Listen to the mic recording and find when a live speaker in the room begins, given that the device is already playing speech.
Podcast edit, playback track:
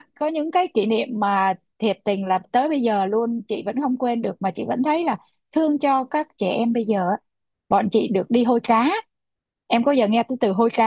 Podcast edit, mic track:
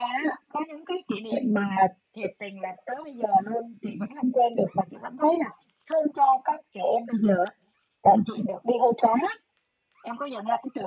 none

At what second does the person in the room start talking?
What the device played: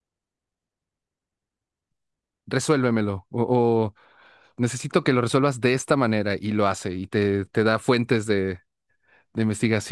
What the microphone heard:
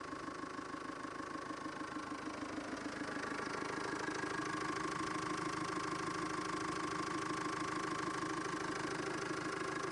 none

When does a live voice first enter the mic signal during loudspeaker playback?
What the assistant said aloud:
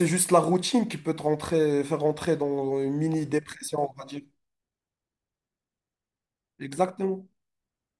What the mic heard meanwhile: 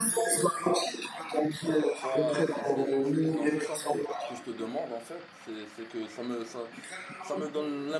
2 s

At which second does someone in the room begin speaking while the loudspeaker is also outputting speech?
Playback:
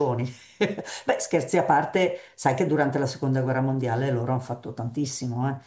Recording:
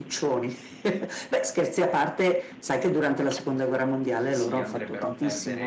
4 s

